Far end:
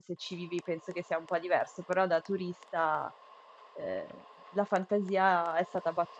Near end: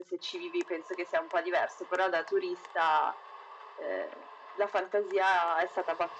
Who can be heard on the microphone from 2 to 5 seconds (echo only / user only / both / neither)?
echo only